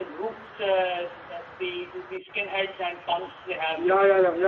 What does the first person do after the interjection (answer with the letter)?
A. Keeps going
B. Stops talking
B